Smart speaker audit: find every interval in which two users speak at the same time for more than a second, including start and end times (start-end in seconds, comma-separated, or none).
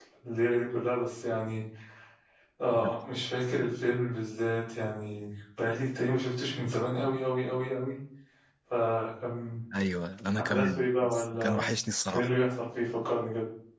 10.4-11.6